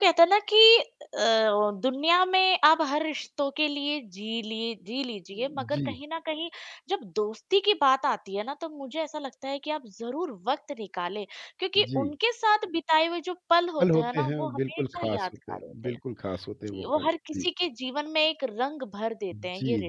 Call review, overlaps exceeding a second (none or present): present